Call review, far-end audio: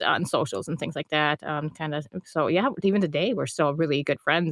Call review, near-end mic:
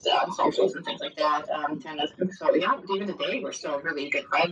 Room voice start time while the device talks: none

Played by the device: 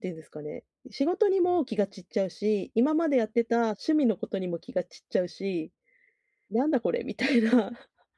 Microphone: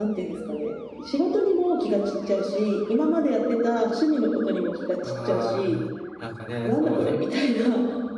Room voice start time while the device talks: 5.0 s

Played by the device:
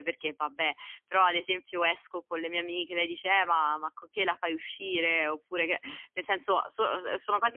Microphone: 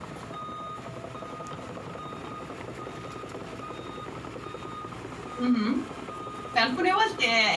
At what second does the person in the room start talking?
5.3 s

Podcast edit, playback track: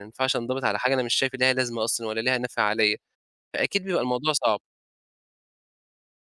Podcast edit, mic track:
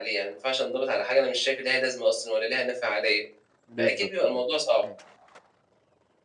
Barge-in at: 3.7 s

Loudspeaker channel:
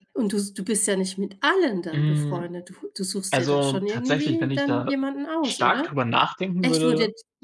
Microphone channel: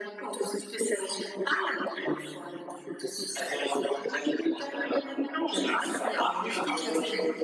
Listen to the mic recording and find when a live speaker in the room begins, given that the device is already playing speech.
5.5 s

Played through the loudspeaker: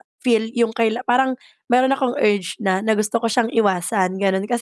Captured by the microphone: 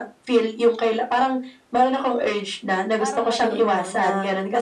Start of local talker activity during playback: 3.0 s

